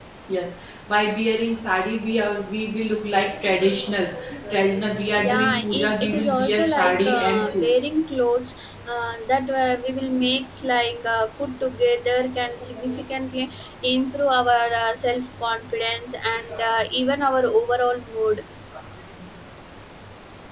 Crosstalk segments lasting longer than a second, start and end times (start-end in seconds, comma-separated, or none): 5.2-7.8